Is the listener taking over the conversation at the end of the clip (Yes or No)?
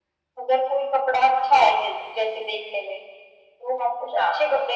No